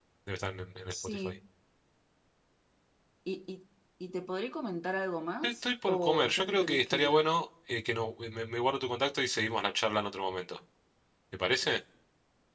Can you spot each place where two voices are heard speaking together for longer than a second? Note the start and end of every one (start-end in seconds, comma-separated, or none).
5.4-7.3